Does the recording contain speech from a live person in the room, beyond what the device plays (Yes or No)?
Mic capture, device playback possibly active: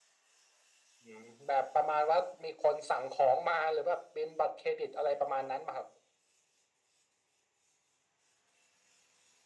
No